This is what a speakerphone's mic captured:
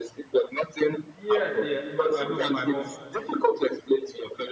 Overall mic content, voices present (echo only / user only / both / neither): both